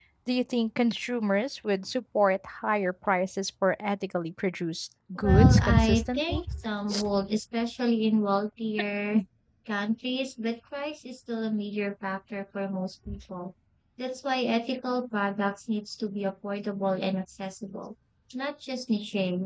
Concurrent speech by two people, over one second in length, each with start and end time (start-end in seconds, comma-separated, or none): 5.2-6.4